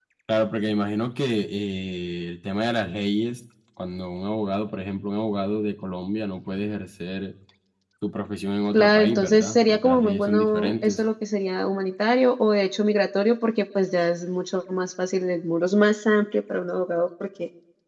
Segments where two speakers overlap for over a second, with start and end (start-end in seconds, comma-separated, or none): 8.7-11.0